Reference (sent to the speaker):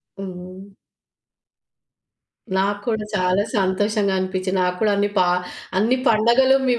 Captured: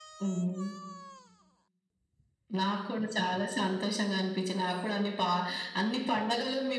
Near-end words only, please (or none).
none